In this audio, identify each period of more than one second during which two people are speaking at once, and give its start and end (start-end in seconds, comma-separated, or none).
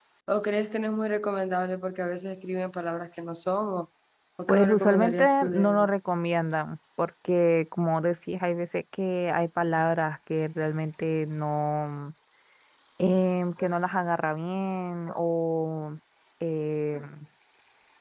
4.5-5.9